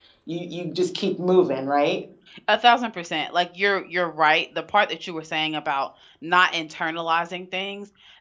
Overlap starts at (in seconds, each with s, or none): none